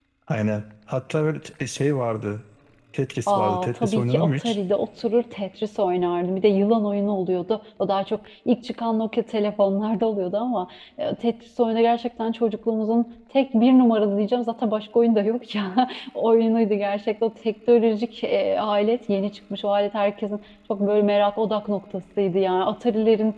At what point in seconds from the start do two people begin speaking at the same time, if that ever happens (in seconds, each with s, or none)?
3.3 s